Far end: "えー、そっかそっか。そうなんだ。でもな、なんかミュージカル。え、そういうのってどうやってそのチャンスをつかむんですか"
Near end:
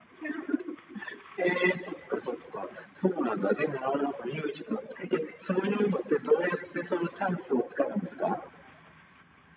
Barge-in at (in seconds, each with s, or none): none